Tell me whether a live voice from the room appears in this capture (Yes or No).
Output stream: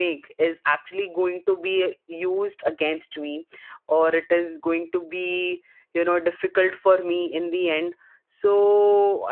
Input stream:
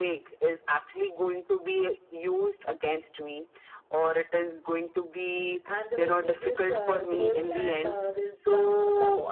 Yes